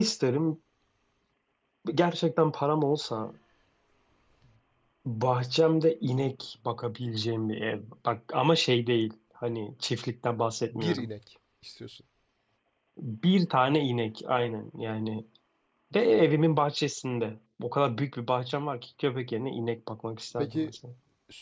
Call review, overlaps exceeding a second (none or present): none